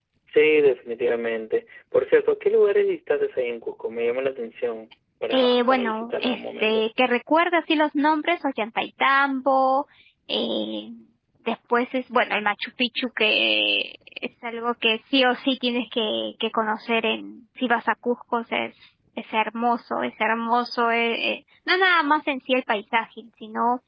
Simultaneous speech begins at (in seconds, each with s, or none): 5.3 s